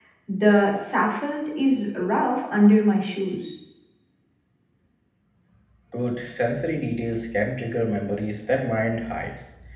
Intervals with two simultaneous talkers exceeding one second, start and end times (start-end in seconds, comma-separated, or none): none